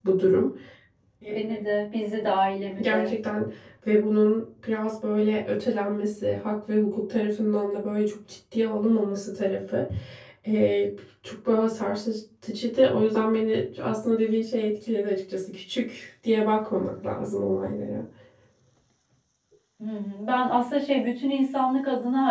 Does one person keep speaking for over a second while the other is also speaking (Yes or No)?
No